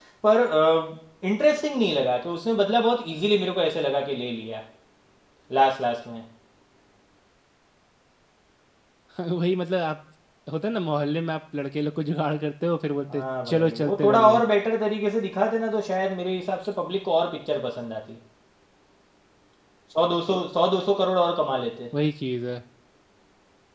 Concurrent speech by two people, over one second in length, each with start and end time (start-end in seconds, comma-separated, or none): 13.1-14.4